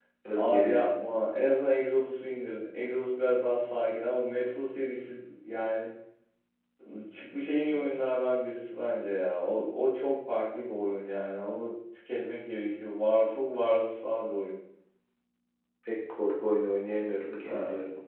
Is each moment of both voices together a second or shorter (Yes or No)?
Yes